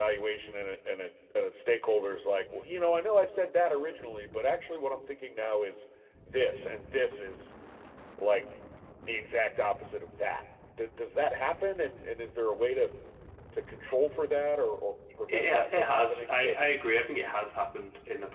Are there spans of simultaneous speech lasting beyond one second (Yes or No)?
Yes